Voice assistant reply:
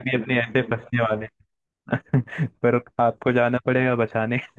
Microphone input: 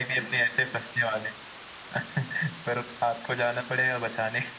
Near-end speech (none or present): none